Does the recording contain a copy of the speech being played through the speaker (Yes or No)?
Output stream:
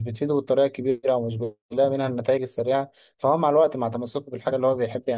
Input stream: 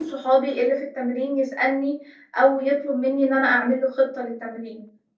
No